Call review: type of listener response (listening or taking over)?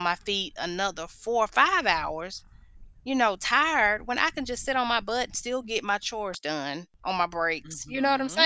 taking over